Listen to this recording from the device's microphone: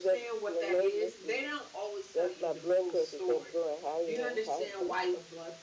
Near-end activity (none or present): present